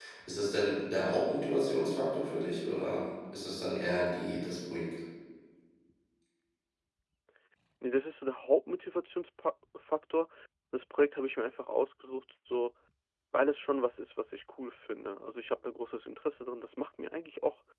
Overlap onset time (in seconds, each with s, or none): none